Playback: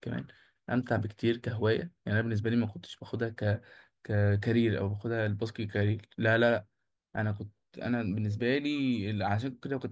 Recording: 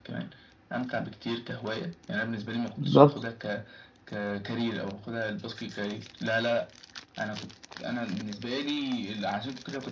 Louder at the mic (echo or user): user